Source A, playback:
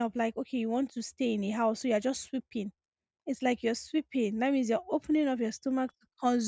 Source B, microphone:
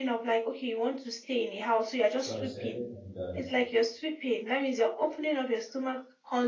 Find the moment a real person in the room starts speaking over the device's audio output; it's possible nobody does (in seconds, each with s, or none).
2.2 s